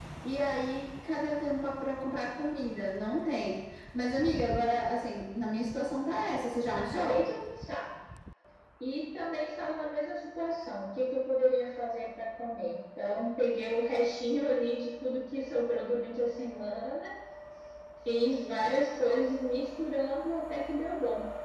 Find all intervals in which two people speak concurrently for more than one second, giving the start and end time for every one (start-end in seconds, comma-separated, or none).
none